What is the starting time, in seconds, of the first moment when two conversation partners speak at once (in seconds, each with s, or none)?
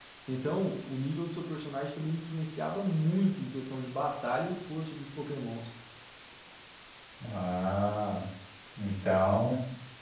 none